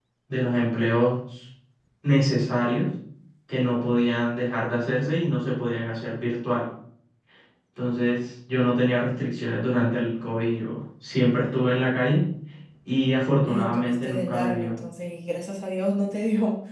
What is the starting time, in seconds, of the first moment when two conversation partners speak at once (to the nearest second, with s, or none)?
13 s